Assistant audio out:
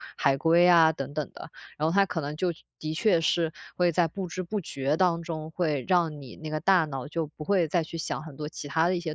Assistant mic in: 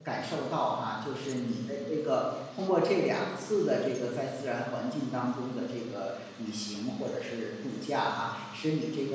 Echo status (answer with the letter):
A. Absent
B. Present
A